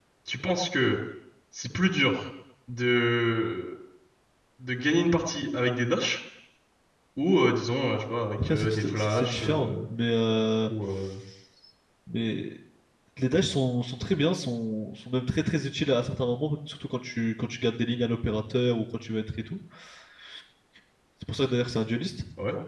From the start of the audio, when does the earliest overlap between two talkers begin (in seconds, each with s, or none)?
8.4 s